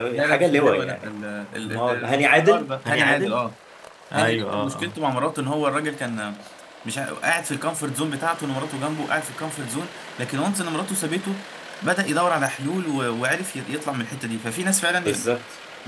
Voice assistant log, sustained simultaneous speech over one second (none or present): present